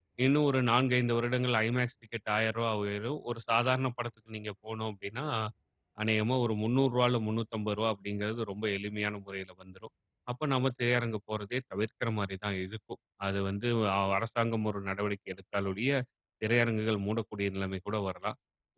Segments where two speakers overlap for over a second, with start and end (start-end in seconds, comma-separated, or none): none